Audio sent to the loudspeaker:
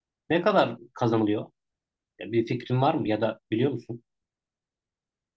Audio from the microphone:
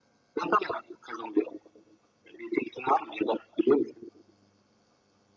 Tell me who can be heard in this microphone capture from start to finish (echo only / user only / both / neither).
echo only